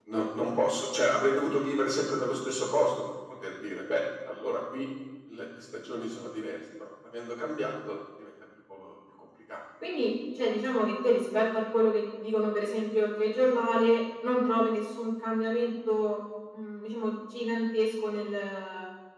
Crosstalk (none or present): none